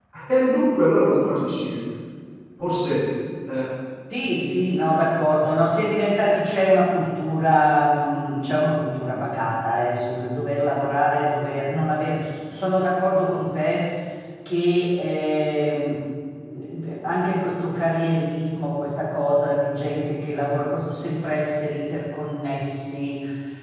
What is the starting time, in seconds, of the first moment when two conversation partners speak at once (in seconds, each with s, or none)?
none